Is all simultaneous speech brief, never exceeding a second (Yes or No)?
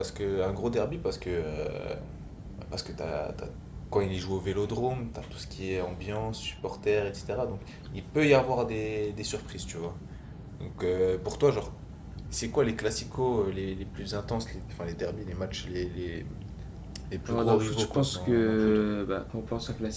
No